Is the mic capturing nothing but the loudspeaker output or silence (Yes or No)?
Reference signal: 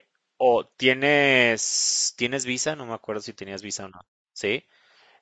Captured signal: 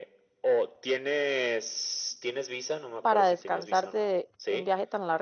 No